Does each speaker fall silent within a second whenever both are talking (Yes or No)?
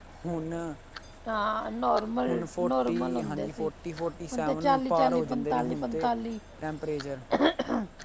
No